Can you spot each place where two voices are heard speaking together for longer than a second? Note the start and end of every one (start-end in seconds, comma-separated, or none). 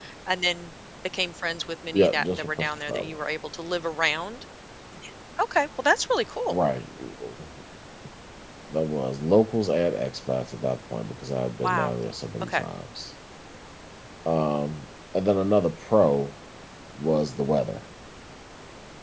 1.9-3.2